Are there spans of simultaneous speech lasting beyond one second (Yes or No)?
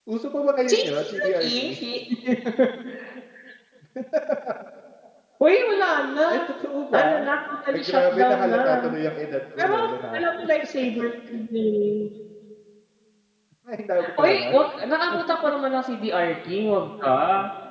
Yes